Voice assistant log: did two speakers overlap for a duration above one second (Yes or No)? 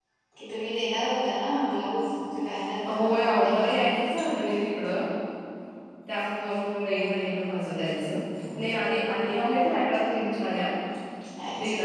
Yes